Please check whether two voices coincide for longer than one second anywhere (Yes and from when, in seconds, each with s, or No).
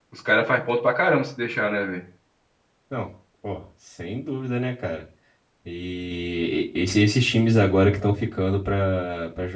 No